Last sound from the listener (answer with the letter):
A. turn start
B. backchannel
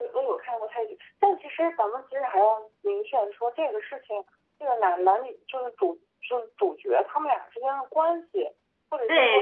A